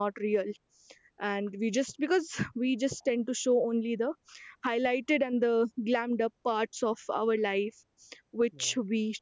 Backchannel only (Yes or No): Yes